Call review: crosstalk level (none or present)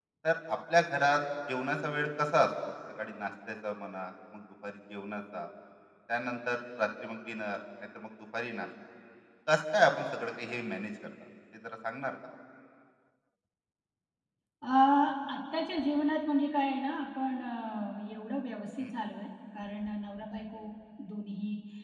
none